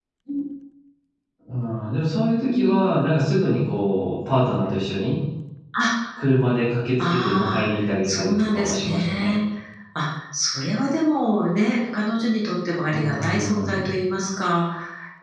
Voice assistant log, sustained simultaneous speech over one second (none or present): present